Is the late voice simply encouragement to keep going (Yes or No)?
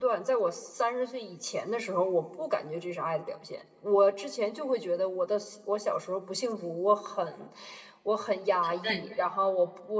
Yes